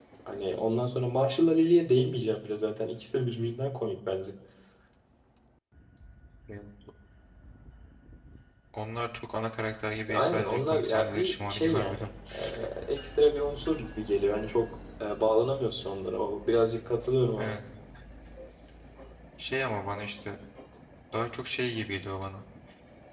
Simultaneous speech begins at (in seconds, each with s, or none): 10.1 s